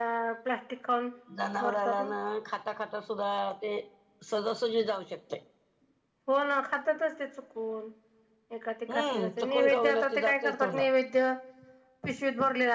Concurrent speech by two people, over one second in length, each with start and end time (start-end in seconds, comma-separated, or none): 8.9-10.8